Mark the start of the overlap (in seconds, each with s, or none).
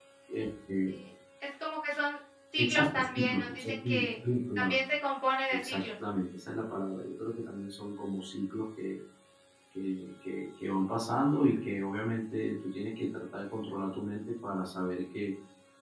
2.6 s